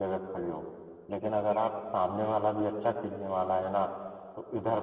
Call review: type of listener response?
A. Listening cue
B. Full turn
A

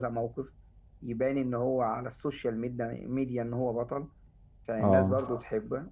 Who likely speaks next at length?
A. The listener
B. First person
B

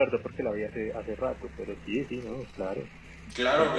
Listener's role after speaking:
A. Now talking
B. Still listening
A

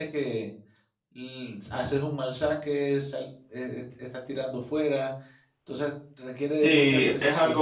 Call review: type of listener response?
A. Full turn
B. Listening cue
A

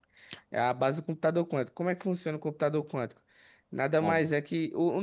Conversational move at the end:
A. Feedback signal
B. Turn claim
A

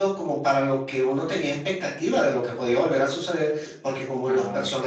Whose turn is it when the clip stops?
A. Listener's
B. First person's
B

